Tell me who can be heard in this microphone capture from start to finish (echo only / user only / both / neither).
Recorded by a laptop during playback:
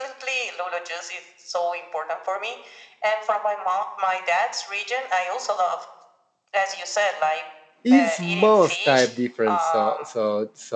both